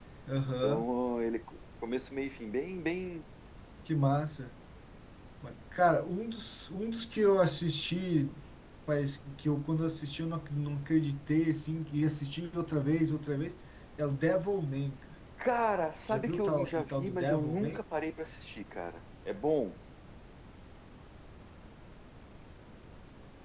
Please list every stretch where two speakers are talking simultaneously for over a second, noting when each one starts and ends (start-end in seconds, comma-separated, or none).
16.1-17.8